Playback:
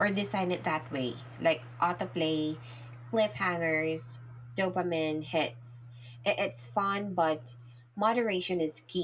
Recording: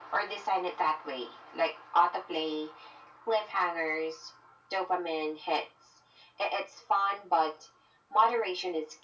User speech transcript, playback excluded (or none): none